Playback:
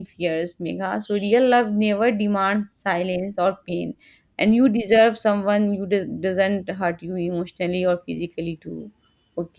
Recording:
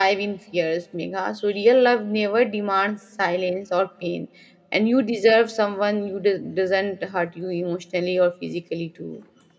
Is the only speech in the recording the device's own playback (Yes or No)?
Yes